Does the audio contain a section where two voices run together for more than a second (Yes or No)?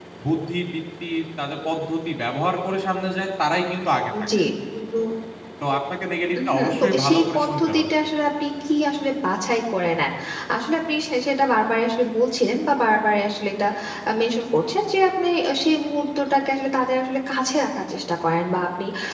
Yes